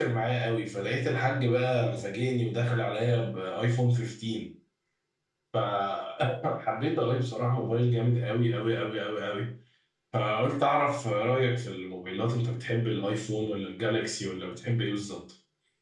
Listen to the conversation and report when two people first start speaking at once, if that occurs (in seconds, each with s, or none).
none